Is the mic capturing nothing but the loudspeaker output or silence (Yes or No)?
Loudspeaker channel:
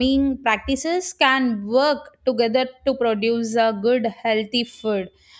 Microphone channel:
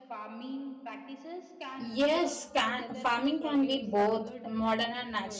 No